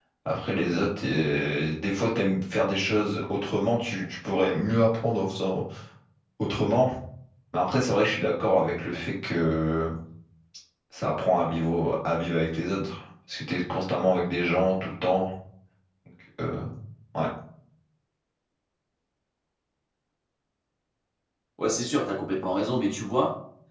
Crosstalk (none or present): none